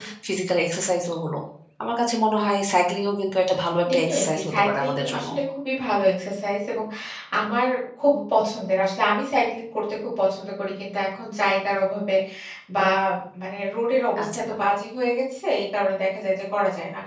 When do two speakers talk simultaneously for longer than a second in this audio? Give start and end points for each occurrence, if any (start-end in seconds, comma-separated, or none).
3.9-5.3